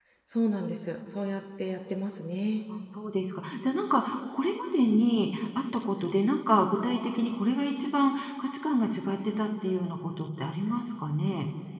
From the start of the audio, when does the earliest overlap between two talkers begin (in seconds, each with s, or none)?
none